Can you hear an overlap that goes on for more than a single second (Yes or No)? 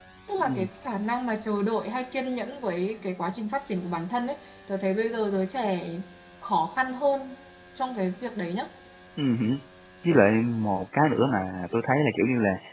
No